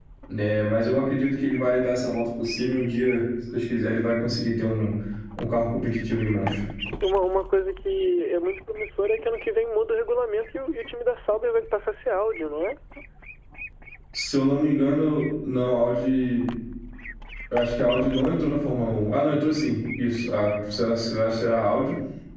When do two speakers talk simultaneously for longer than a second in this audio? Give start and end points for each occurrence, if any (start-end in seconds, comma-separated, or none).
none